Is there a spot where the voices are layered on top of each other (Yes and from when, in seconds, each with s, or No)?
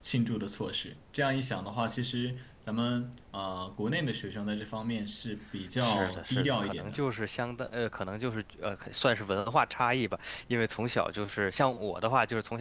Yes, from 5.8 s